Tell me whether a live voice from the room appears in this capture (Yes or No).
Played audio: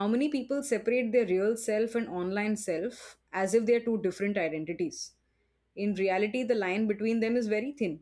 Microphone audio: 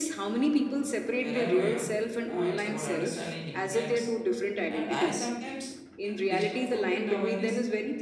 Yes